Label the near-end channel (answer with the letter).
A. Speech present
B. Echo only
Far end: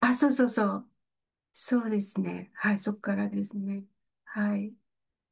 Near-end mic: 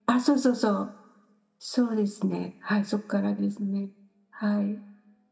B